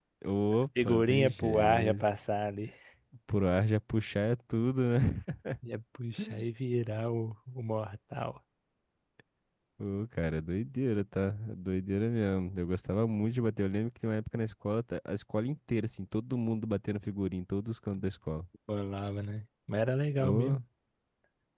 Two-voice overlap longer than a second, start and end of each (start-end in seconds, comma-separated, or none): 0.8-2.0